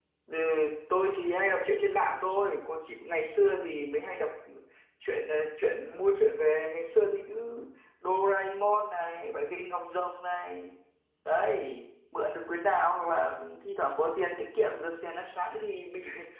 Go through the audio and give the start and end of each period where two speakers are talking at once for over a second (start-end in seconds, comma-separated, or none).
none